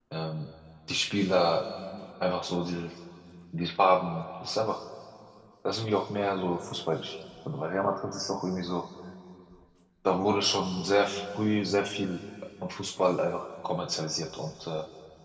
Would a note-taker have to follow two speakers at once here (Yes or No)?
No